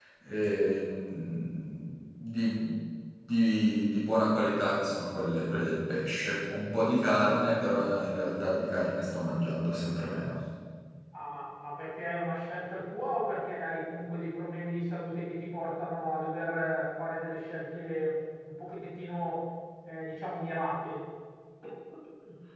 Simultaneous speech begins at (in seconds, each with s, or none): none